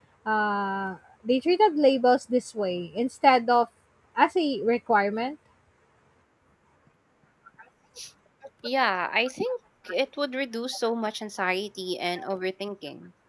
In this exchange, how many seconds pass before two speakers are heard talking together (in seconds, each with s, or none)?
none